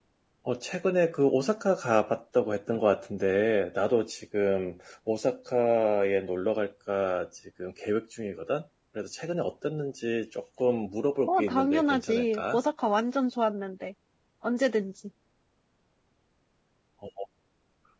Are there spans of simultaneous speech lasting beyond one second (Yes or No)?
Yes